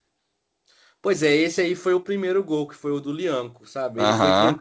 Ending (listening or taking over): listening